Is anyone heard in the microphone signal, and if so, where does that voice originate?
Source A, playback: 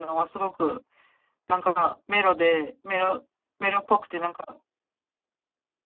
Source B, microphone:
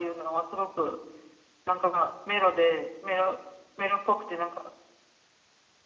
echo only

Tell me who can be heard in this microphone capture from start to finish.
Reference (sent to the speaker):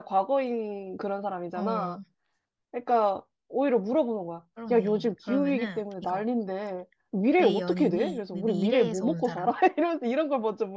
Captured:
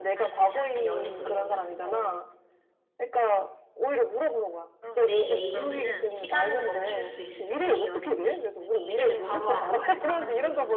both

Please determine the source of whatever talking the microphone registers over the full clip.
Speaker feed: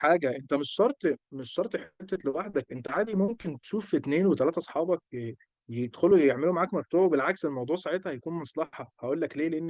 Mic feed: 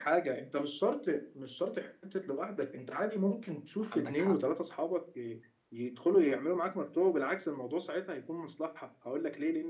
both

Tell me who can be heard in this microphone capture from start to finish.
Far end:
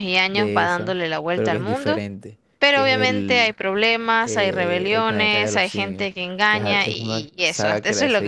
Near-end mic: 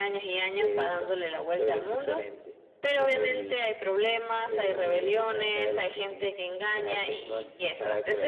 echo only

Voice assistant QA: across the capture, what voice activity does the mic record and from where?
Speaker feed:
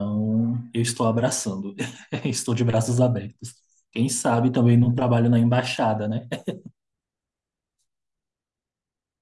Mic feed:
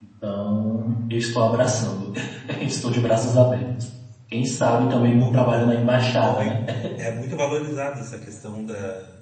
both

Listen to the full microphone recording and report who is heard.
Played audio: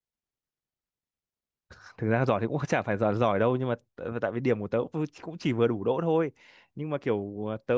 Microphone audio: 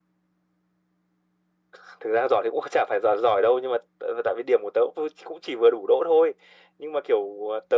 echo only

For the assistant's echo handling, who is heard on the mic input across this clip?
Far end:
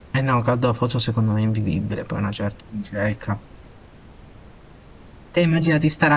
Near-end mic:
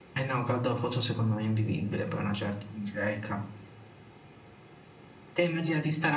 echo only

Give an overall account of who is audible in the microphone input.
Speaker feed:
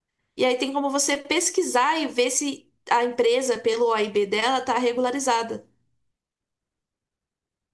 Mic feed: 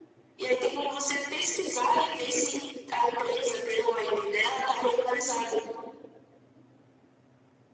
echo only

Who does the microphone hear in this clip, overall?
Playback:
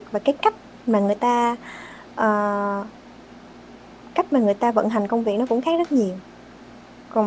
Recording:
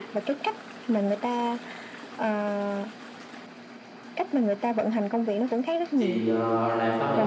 both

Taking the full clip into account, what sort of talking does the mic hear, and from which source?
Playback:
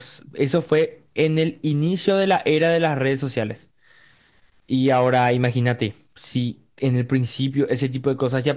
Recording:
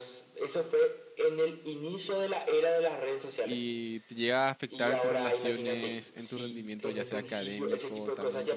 both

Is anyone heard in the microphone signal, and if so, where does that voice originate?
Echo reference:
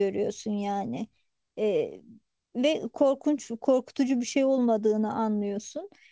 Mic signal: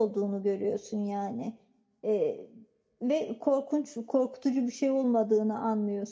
echo only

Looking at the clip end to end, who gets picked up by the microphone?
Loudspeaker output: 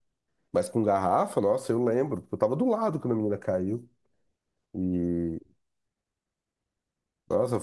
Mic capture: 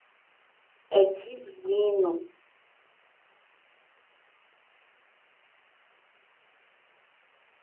user only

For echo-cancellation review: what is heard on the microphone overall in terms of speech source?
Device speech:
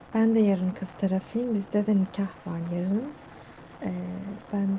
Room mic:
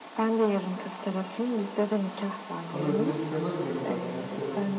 both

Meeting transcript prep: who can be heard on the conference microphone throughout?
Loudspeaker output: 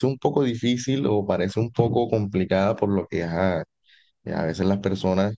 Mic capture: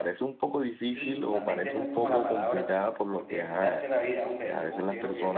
both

